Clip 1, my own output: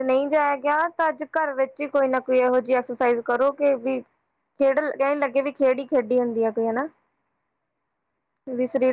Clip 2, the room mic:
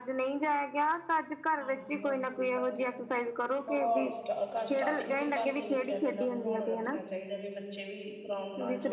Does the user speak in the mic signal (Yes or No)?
Yes